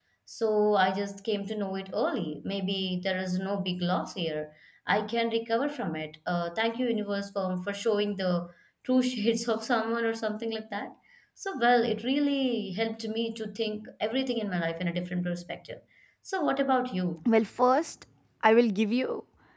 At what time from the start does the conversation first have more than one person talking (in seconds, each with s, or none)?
none